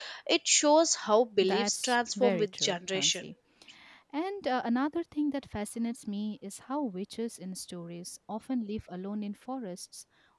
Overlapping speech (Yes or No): Yes